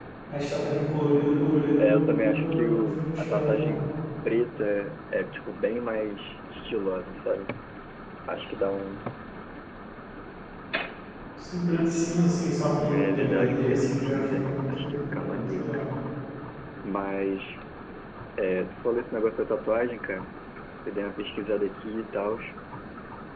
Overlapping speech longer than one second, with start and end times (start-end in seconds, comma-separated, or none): 1.8-3.8, 12.8-15.9